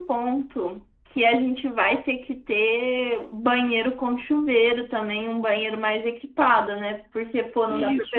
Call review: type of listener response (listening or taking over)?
listening